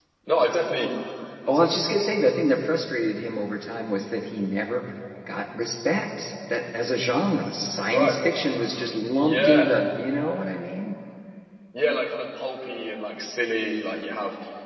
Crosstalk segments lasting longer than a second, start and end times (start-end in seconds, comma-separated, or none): none